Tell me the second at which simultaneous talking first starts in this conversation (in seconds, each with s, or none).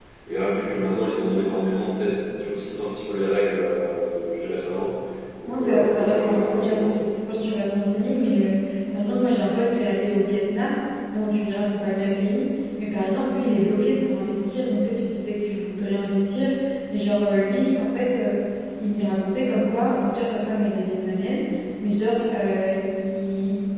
5.5 s